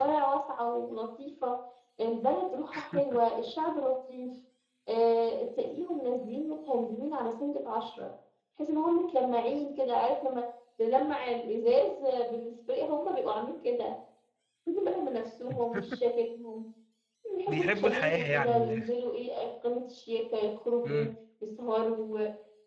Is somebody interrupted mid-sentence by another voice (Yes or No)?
Yes